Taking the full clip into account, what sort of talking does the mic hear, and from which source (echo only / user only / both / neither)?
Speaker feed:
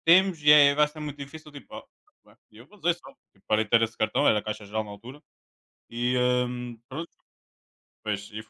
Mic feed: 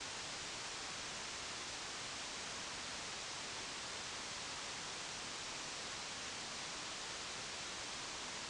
neither